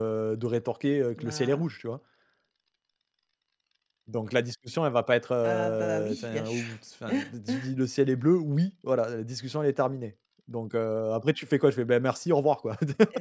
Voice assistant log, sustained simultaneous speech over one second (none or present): present